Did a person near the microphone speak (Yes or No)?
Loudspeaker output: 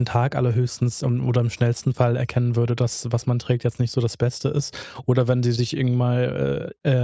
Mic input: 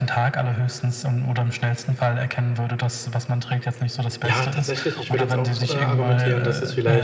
Yes